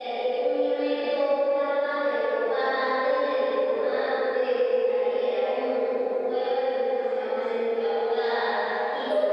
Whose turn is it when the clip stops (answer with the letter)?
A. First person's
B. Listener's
A